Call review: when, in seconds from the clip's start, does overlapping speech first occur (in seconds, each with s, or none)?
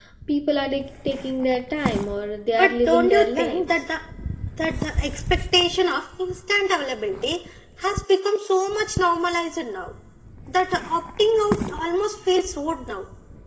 2.5 s